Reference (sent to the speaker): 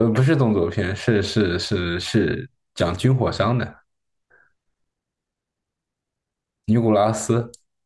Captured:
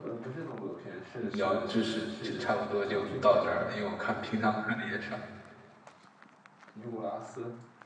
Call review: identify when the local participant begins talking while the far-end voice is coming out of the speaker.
1.3 s

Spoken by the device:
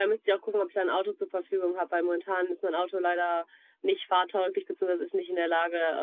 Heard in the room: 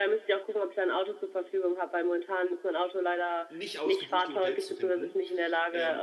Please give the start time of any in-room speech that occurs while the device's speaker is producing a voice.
3.5 s

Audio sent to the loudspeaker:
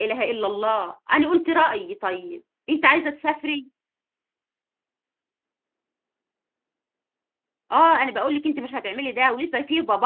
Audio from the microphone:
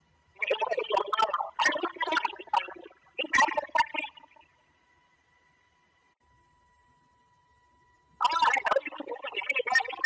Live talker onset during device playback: none

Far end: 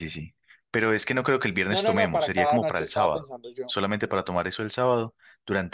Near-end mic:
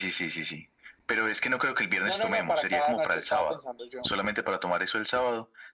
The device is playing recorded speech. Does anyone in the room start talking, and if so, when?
none

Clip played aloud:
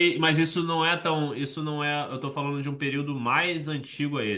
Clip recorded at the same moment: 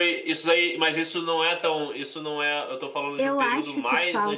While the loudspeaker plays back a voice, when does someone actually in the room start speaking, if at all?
3.2 s

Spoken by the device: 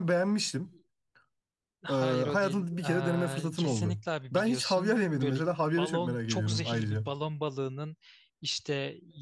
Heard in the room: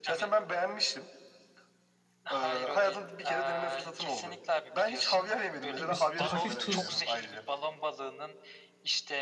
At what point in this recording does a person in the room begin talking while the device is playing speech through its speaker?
5.8 s

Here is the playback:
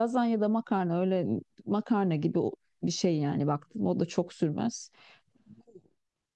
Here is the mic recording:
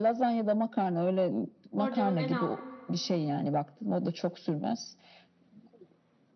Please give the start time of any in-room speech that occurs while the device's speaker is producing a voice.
1.8 s

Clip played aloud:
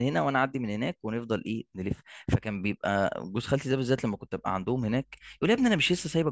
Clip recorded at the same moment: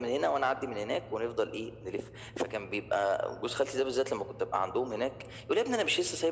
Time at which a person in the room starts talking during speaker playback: none

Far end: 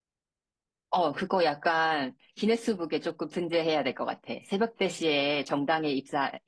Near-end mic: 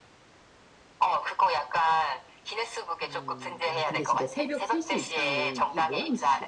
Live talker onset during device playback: 3.0 s

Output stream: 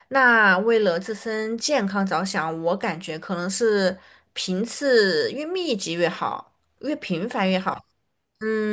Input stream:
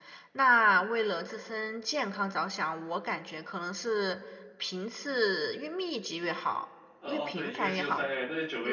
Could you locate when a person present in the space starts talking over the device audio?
7.0 s

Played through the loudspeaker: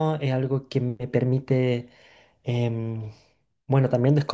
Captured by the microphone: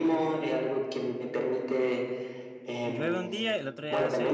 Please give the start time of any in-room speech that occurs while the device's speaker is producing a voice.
2.8 s

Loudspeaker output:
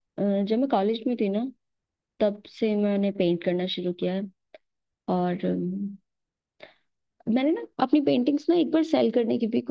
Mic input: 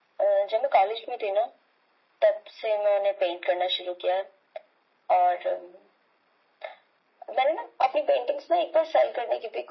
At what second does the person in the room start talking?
none

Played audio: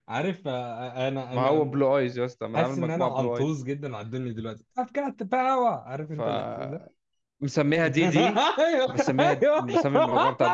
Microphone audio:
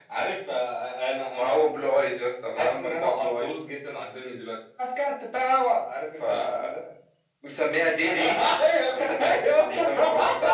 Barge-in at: none

